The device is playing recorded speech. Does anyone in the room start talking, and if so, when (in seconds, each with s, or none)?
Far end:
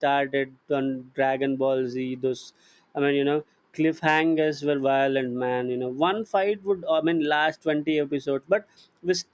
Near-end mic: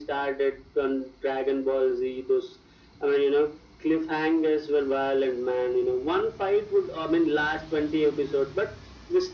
none